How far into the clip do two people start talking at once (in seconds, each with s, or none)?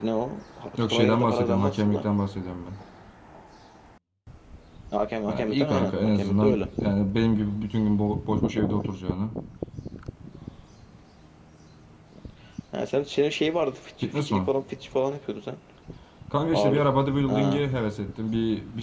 0.8 s